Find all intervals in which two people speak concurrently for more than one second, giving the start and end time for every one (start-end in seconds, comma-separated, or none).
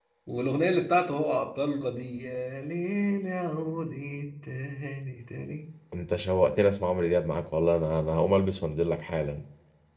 none